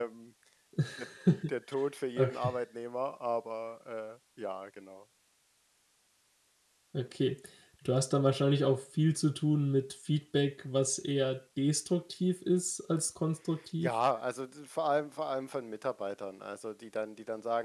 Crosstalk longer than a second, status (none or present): none